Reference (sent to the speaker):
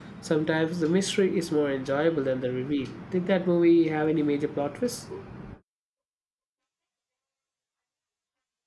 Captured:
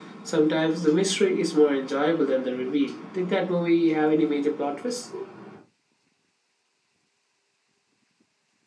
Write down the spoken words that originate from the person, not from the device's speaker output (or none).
none